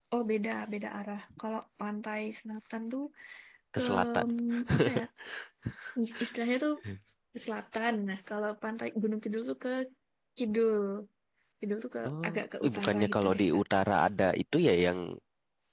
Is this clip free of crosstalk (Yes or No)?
No